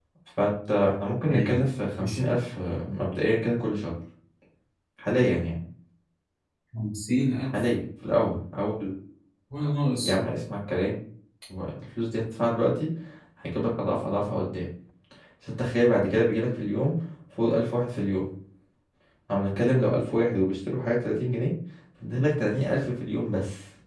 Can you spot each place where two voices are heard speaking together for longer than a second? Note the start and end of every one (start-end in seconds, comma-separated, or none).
none